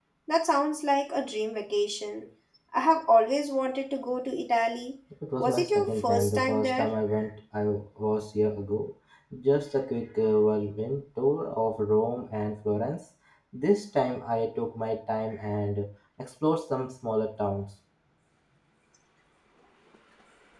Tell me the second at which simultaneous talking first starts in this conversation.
5.4 s

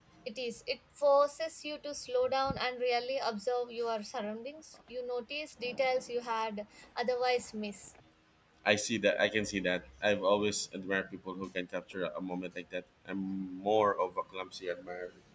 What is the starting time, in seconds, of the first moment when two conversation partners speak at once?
none

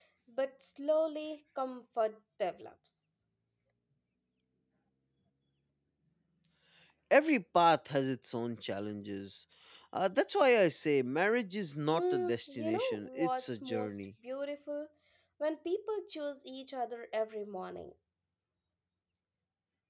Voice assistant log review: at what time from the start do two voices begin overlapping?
11.9 s

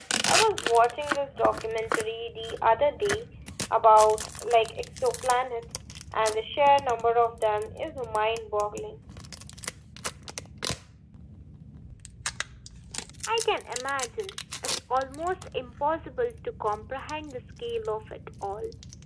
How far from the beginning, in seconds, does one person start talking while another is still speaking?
none

